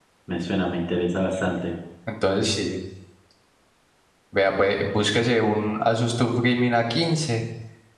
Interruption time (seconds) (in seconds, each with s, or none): none